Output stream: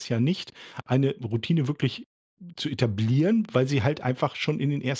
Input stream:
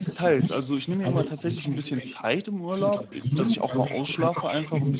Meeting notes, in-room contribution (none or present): present